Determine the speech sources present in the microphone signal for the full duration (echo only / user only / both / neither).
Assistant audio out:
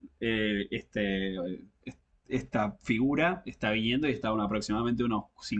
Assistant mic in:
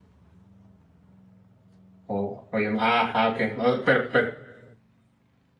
user only